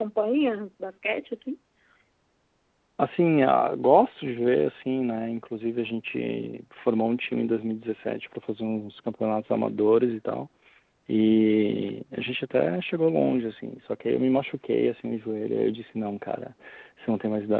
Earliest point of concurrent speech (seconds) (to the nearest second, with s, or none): none